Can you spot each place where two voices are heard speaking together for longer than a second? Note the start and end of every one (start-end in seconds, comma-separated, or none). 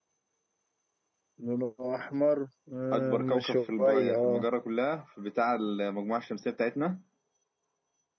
2.9-4.4